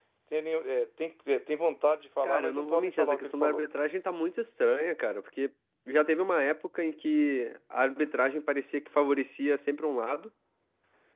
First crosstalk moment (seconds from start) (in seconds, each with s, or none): 2.2 s